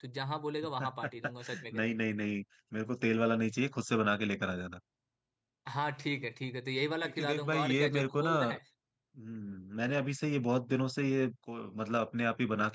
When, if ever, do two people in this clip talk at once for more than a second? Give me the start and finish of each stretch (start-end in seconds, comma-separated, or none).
7.0-8.3